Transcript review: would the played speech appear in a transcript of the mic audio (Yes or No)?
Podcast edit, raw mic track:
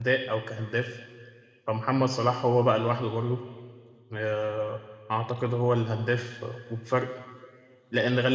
No